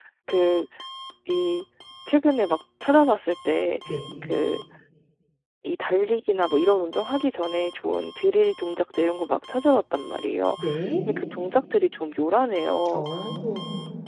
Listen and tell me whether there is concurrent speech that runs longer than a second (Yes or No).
No